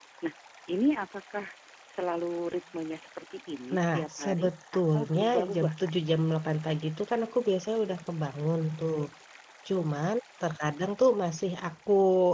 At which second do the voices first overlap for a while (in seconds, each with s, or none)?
3.7 s